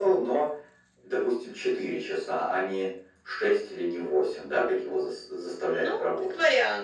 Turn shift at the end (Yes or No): Yes